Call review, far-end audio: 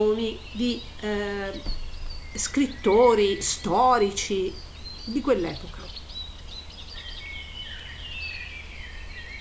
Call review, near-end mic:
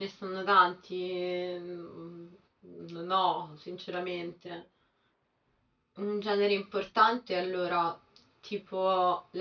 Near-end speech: present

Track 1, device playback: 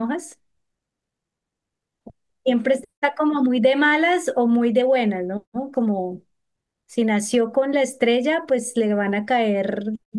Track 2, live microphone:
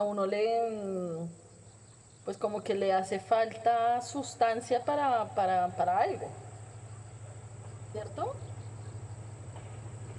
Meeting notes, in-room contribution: present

